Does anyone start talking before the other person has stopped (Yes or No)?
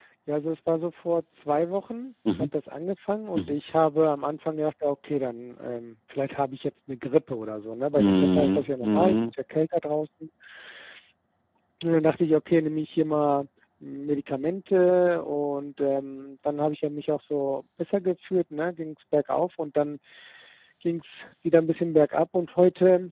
Yes